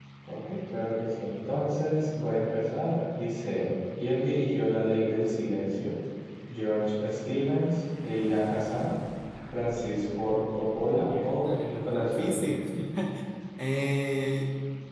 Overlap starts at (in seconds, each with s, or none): 10.9 s